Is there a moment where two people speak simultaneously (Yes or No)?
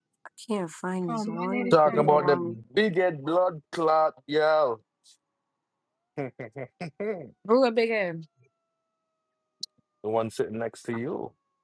Yes